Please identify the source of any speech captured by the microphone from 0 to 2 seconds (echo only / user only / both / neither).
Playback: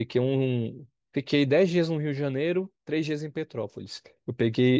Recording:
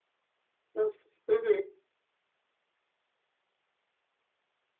user only